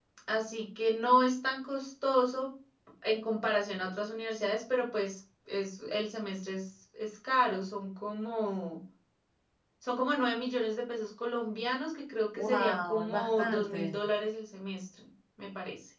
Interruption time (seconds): 12.4 s

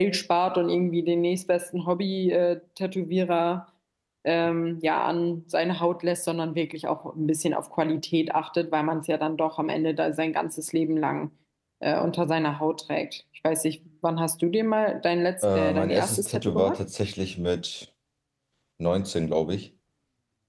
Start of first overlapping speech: 15.4 s

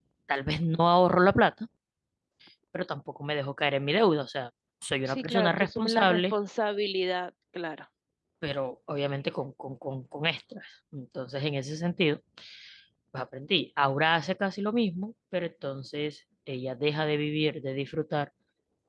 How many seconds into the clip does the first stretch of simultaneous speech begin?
5.1 s

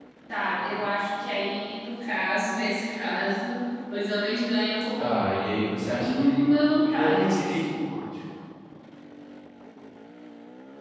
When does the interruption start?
5.0 s

